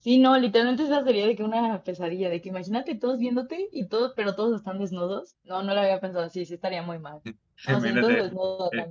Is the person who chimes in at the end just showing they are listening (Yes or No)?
No